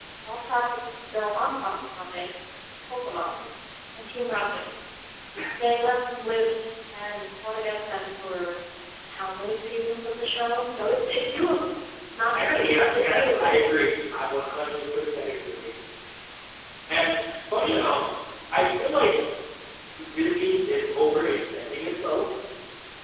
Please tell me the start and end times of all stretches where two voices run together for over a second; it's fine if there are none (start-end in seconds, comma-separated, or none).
12.3-13.6